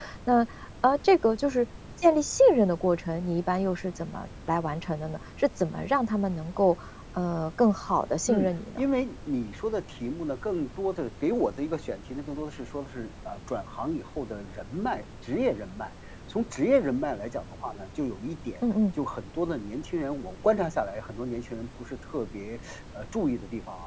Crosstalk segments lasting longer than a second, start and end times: none

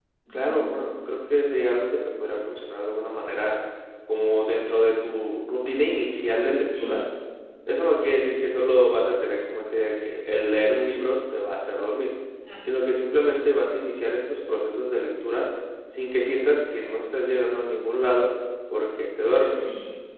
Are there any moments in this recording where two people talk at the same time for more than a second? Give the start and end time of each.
none

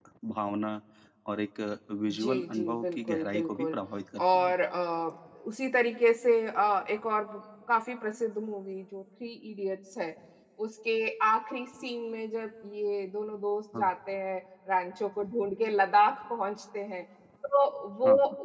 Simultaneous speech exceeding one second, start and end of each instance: 2.1-3.8

